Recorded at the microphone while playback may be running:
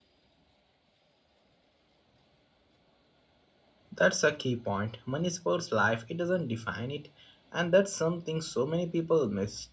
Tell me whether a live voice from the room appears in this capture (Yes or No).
Yes